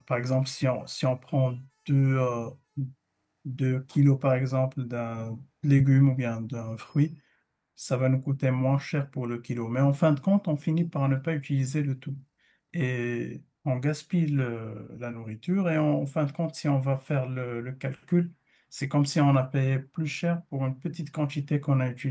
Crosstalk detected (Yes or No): No